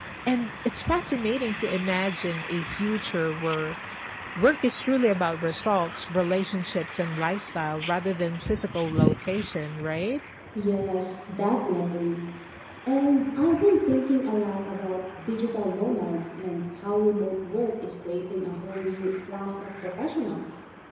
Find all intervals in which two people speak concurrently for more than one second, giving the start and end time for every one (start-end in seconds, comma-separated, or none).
none